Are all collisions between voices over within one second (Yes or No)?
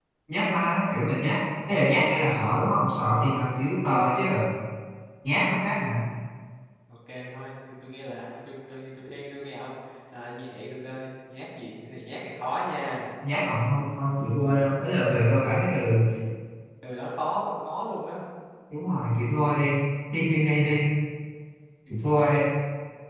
Yes